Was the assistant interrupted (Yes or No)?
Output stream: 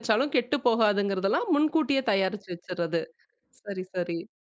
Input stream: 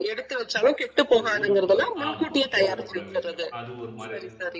Yes